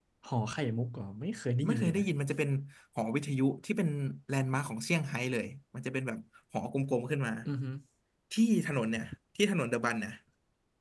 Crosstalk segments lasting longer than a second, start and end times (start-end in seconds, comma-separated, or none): none